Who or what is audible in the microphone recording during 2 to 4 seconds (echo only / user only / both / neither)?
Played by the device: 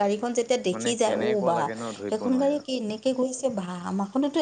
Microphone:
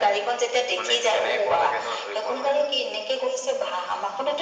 echo only